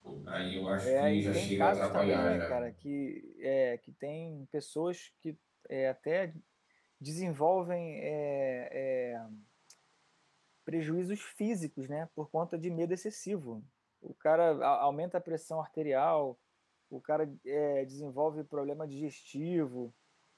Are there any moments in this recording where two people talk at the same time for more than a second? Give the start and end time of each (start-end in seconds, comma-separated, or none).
0.8-2.5